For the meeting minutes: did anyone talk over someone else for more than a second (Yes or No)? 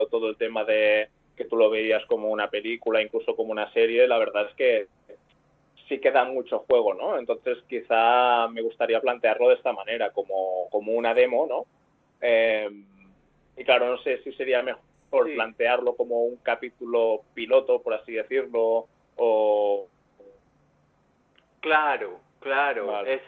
No